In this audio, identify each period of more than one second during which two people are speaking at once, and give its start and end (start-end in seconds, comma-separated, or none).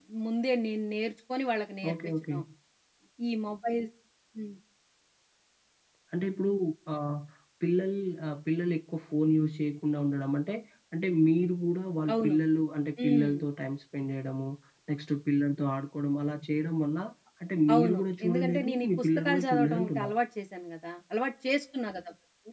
17.7-20.1